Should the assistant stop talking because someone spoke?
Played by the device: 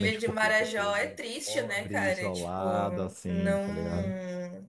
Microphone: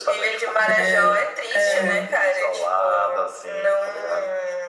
Yes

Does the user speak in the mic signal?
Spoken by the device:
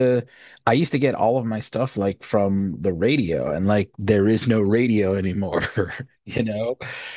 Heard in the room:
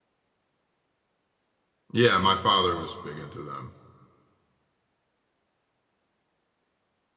Yes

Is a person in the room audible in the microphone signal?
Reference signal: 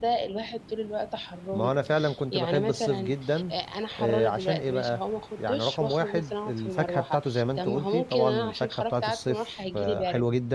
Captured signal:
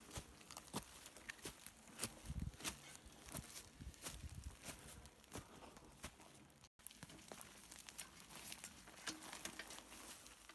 No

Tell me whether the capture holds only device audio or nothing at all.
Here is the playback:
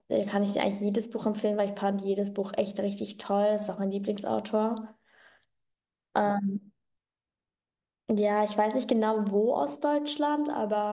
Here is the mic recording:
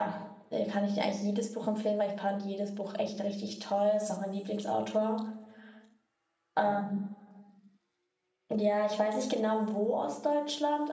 Yes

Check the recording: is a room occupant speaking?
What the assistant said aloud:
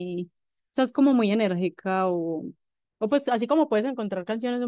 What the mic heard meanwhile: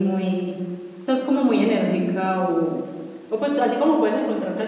No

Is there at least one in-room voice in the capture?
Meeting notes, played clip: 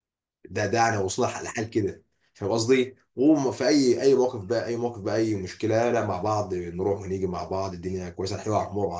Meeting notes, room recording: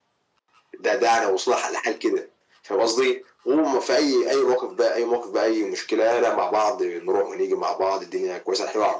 No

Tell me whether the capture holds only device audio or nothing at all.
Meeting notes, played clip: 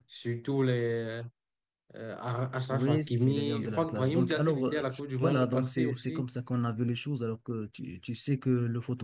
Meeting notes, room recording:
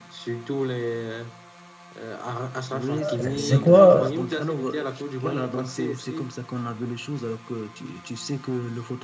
No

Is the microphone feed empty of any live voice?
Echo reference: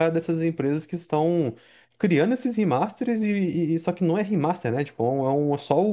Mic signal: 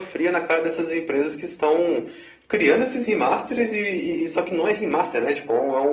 Yes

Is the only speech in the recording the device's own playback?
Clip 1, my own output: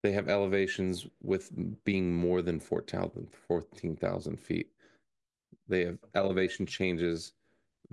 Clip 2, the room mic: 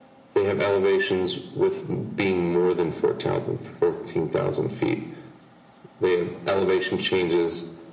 Yes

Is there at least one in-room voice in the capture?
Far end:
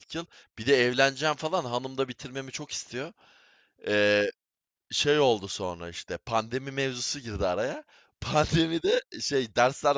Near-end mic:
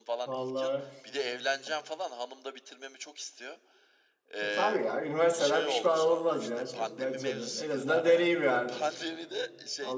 Yes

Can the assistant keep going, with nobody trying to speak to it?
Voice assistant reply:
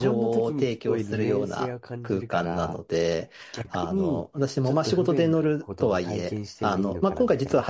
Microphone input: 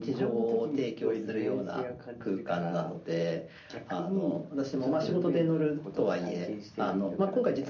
Yes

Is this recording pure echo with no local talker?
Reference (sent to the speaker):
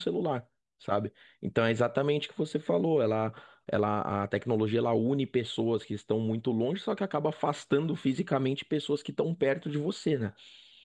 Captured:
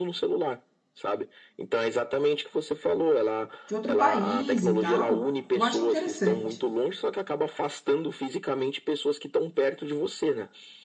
No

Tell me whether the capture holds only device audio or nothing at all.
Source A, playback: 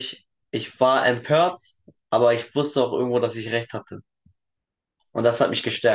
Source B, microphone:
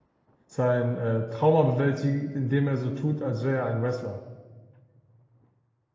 No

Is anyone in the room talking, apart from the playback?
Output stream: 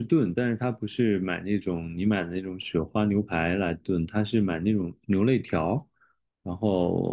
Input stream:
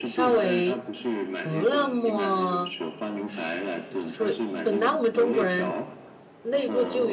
Yes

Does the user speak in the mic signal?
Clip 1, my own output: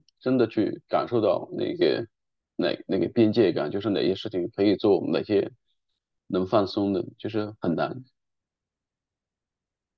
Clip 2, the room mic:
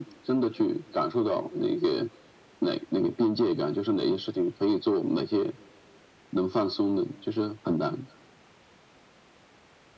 No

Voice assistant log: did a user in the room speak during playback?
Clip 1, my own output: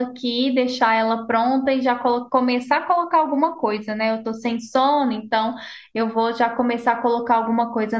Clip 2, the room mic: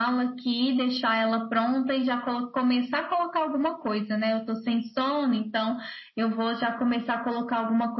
No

